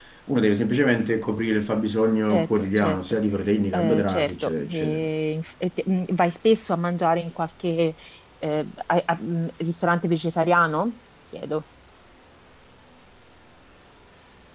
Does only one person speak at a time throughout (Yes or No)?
No